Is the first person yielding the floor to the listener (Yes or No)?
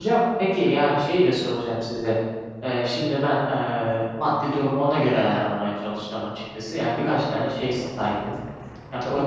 No